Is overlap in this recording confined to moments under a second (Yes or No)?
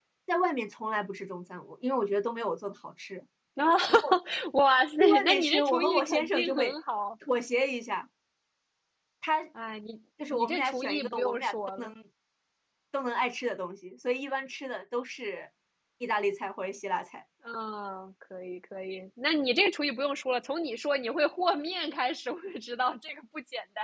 No